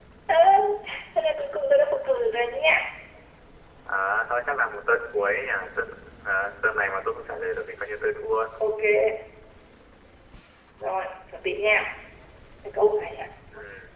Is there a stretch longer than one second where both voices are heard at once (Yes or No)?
No